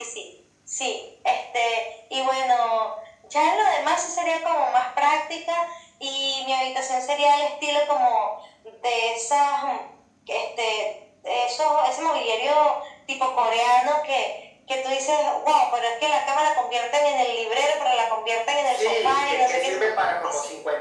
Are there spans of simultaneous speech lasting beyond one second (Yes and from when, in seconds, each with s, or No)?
Yes, from 18.7 s